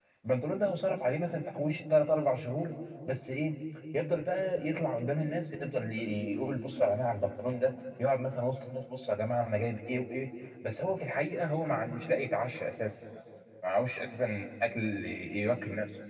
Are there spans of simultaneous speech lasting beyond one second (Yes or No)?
No